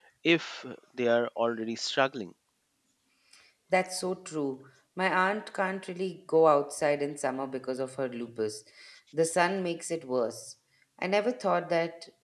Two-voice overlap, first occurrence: none

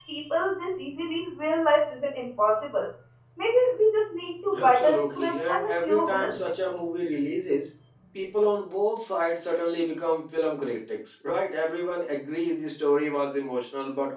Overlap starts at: 4.5 s

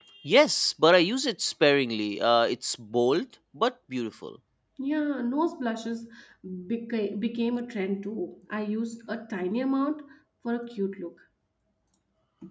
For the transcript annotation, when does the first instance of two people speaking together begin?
none

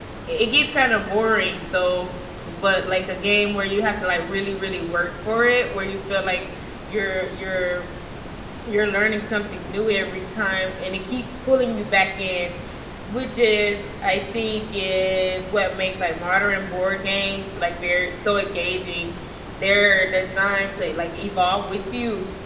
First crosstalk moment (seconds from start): none

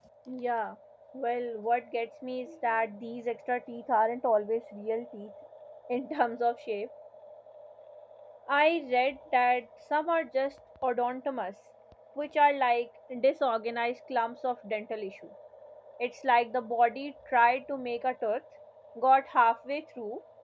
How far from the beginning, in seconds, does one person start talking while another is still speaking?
none

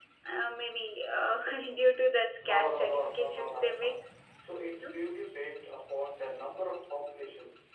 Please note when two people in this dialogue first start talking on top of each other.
2.5 s

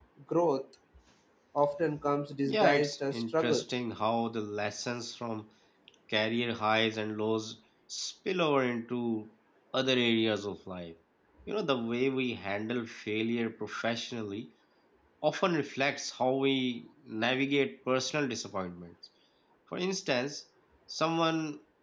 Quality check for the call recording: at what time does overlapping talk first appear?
2.4 s

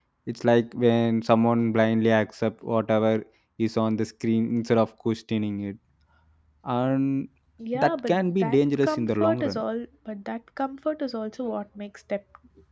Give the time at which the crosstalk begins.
7.7 s

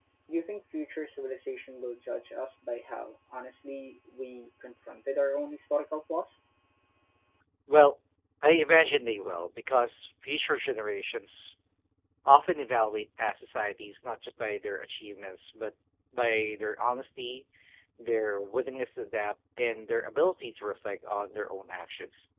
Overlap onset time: none

